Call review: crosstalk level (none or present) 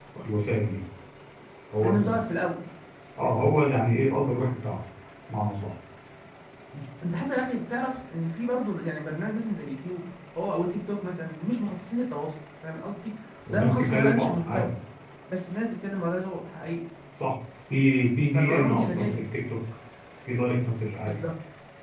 present